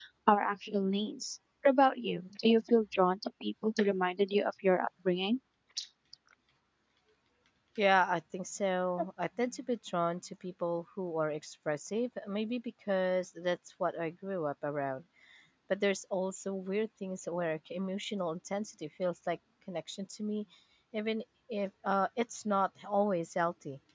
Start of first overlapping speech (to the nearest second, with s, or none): none